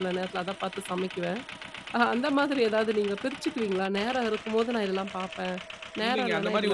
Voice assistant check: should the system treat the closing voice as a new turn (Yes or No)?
Yes